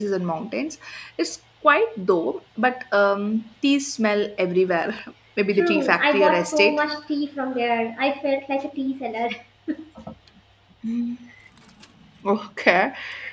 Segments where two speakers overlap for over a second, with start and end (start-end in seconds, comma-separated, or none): 5.5-6.8